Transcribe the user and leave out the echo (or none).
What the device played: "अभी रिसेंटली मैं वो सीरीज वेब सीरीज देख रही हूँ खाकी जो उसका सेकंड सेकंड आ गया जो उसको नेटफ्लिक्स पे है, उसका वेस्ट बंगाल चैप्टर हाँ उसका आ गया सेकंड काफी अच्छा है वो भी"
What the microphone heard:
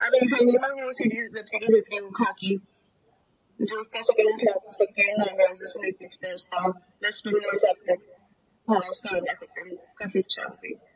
none